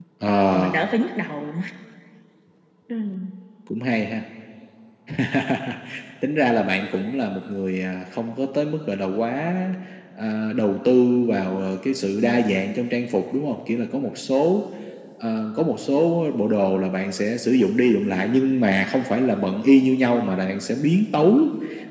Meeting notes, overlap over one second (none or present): none